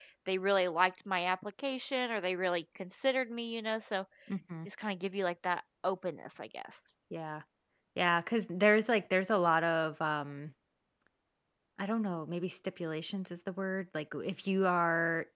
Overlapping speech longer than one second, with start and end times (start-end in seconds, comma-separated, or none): none